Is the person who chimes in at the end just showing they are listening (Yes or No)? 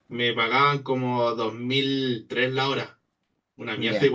No